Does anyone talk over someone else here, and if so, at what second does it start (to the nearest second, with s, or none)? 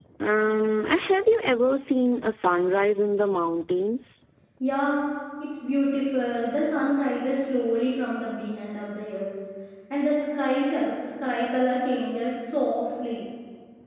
none